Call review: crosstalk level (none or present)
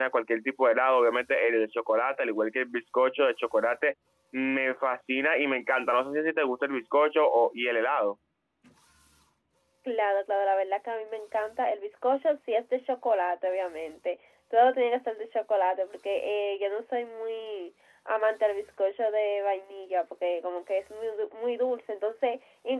none